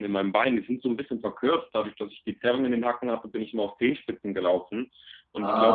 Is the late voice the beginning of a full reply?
No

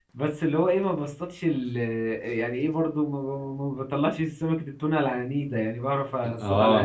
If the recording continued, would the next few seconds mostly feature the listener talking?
Yes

